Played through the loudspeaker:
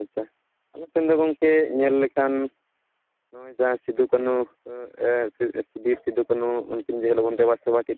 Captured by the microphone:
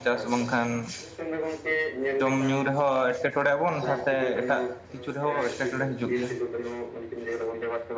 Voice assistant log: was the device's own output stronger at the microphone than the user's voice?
No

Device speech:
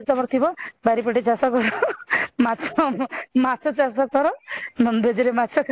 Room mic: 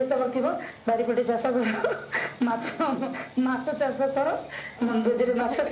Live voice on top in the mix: No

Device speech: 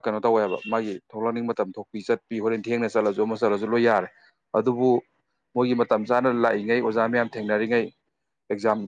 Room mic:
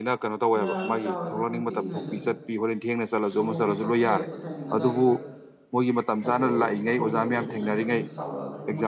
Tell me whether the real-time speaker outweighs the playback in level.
No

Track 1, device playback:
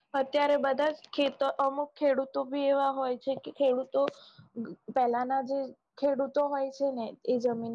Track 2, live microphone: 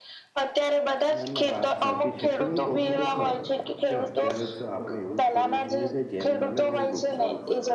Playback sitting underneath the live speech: No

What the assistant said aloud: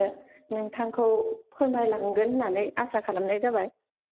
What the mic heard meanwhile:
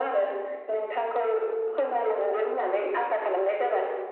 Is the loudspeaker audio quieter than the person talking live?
No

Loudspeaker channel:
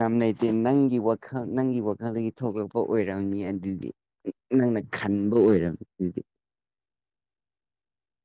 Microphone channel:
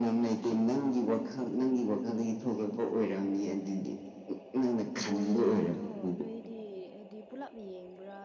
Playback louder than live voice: Yes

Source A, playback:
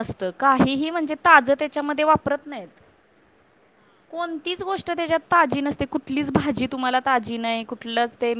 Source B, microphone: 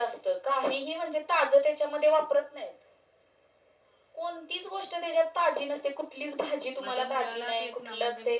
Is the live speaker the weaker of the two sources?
Yes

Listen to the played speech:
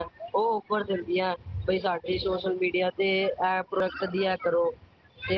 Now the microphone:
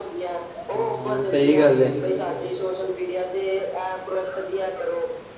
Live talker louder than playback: Yes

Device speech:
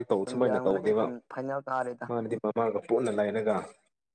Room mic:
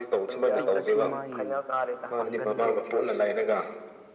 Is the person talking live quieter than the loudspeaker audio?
Yes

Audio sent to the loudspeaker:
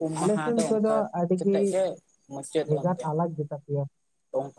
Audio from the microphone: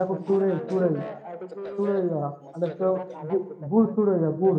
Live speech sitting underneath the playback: No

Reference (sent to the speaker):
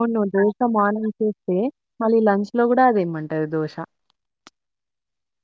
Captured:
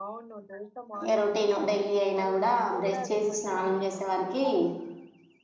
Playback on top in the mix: No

